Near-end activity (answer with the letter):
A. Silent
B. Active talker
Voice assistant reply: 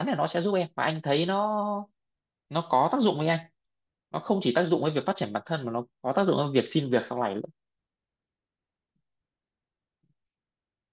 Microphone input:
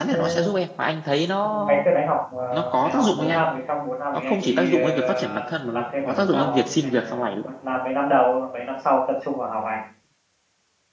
B